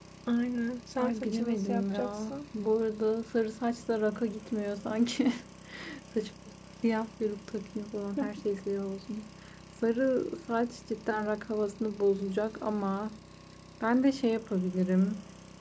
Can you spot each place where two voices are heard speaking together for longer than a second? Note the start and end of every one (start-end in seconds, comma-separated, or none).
1.0-2.4